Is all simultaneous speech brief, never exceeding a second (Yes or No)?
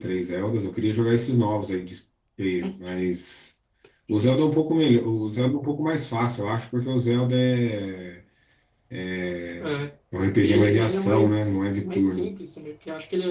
No